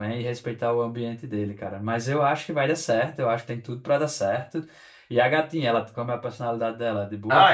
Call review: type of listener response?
taking over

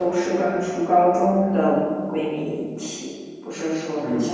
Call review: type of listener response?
taking over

